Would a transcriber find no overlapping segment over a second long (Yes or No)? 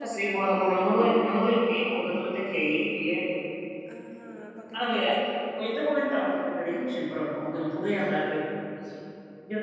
No